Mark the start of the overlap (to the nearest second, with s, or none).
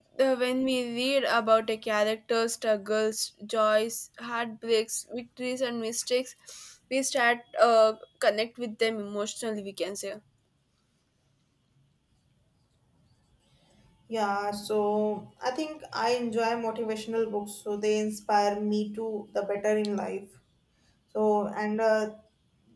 none